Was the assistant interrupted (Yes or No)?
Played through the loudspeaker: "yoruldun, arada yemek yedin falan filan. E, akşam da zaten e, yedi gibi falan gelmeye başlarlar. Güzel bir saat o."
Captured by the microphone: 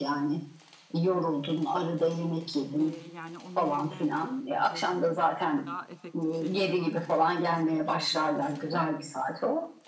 Yes